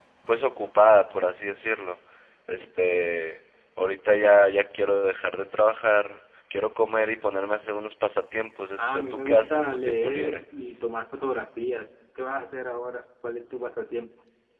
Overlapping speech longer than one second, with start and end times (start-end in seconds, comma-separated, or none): 8.8-10.4